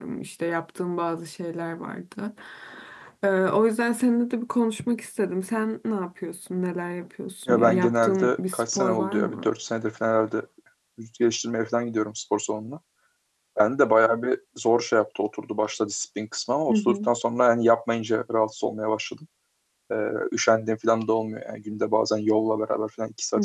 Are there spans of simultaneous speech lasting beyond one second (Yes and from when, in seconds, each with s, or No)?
Yes, from 7.5 s